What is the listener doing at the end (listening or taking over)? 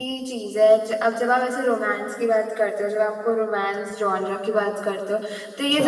listening